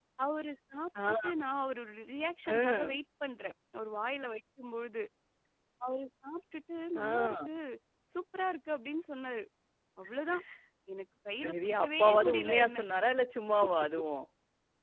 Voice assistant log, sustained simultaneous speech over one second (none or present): present